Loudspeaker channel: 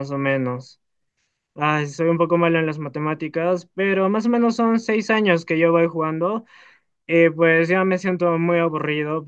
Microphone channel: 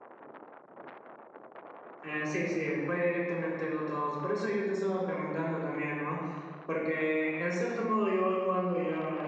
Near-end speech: present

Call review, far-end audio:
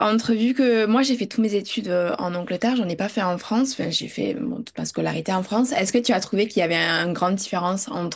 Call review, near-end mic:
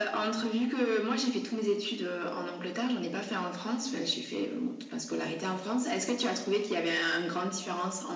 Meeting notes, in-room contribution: none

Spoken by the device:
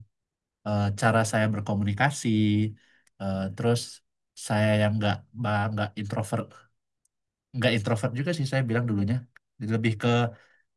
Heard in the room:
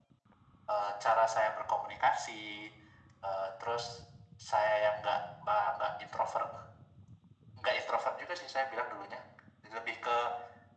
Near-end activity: none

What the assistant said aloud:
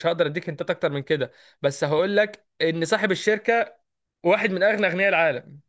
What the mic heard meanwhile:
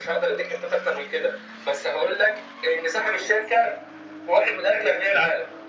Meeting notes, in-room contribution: none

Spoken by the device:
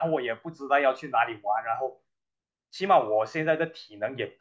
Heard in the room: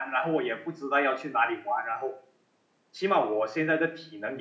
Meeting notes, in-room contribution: none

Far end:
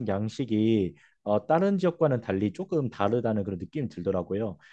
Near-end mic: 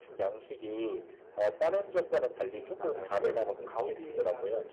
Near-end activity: present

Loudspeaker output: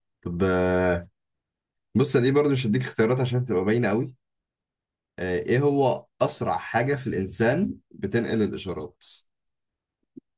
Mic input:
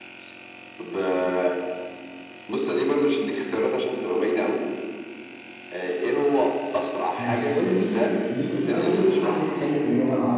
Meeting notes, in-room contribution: present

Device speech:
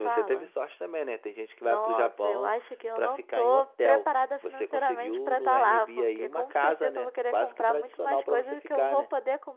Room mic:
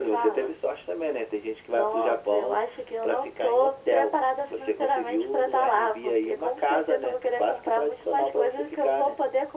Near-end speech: none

